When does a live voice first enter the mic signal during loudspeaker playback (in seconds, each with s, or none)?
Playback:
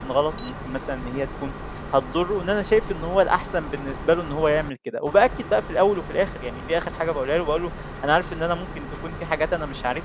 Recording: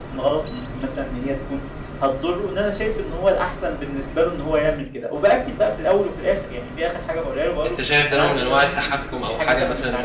7.7 s